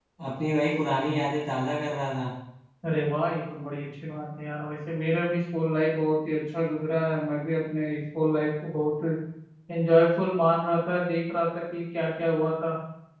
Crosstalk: none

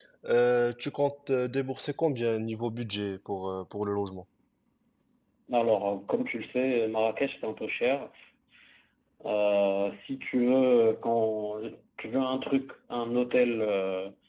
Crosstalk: none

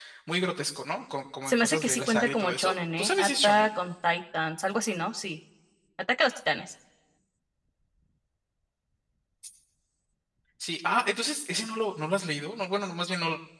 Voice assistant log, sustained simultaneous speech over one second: present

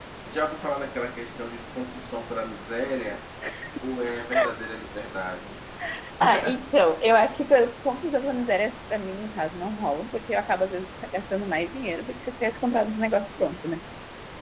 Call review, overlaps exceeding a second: none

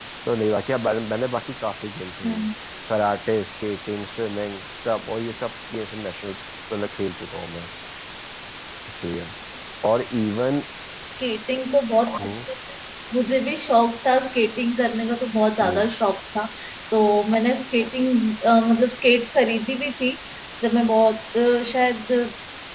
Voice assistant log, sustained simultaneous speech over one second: none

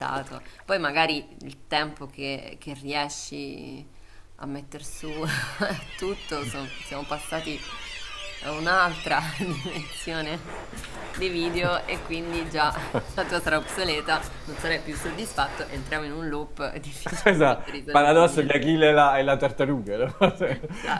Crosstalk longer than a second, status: present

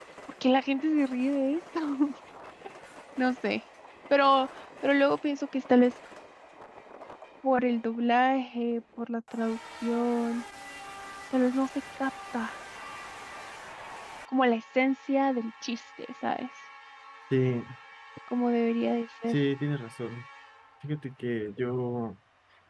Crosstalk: none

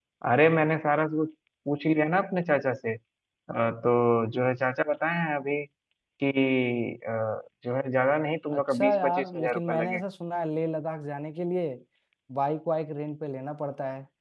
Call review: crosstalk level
present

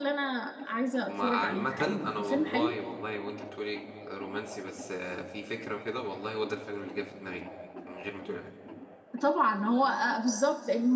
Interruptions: present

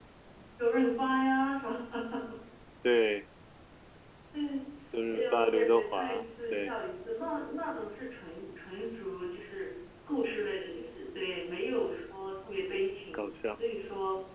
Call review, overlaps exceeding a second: present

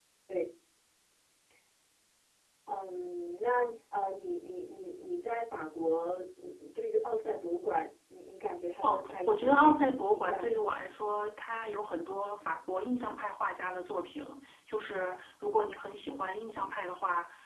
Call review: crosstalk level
present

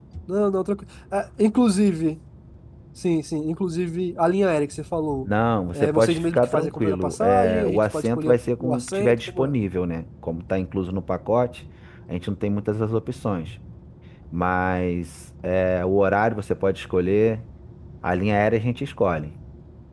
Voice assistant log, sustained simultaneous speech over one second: present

